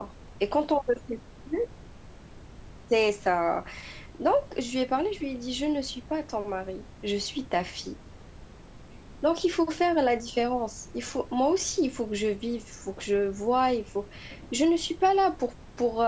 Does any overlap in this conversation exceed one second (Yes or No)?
No